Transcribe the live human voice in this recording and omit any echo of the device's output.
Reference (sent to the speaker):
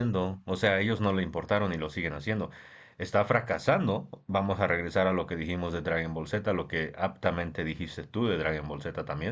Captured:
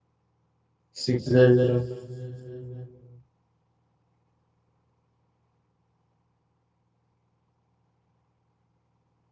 Sí, claro.

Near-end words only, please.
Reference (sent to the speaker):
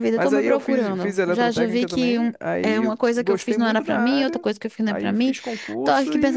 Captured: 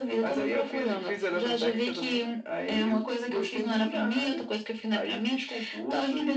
none

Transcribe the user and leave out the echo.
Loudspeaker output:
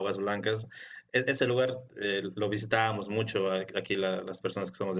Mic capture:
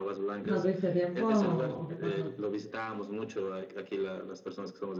¿No tuviste tiempo o, qué pasó?

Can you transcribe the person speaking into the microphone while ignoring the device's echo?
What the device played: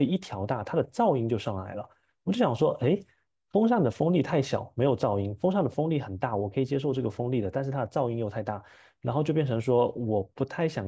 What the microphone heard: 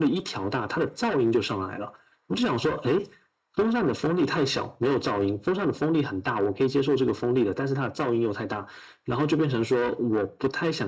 none

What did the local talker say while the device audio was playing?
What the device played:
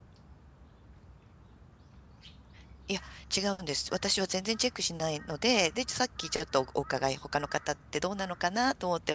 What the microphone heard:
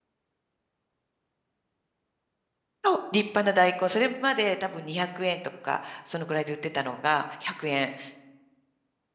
あ立派な大根、それまで多分200円とか、そのくらいで売ってたのが100円。で

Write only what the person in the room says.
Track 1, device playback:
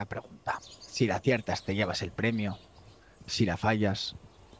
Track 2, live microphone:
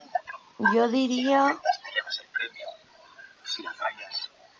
yo diría

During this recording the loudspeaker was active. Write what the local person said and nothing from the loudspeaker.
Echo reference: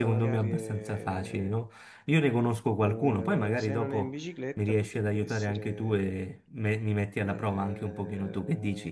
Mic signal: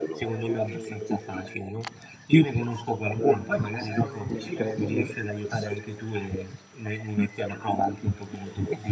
Non credo, no?

